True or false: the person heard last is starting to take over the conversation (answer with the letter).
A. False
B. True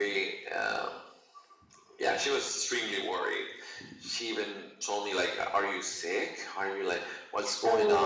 A